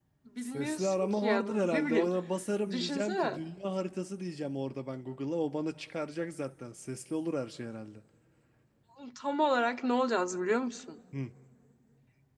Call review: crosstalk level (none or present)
present